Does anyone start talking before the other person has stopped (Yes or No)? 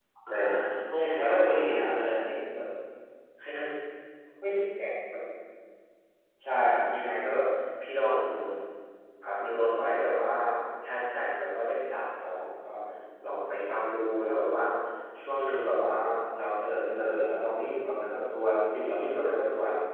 Yes